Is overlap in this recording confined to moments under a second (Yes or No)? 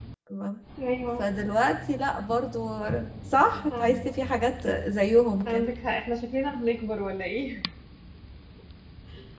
Yes